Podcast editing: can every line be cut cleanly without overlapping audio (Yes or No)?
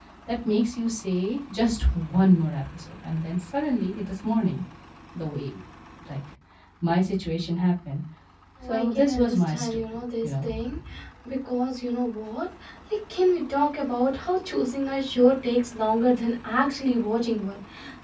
No